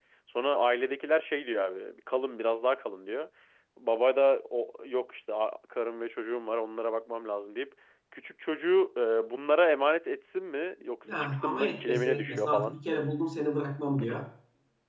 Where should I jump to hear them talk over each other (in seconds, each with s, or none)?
11.0 s